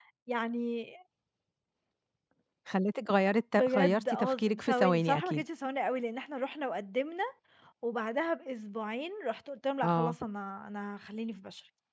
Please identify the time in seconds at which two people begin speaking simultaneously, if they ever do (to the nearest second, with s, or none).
4 s